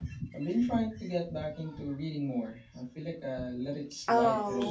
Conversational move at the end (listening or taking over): taking over